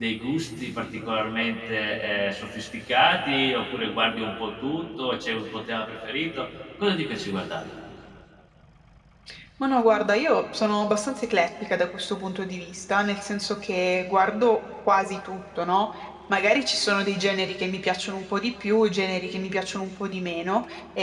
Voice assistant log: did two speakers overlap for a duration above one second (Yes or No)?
No